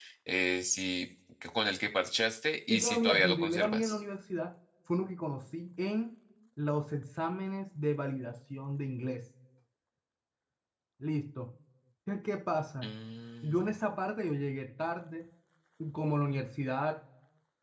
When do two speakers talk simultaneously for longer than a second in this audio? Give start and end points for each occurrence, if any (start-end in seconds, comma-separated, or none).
2.7-4.0